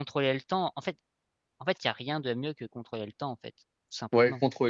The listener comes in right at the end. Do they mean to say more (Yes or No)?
Yes